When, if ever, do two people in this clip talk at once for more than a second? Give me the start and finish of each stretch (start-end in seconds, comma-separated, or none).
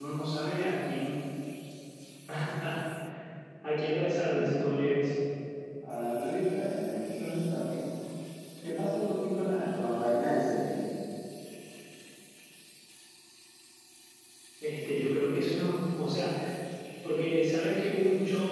none